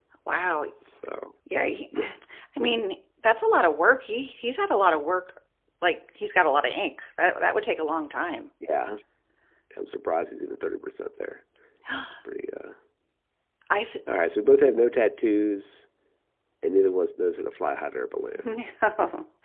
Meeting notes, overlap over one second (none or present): none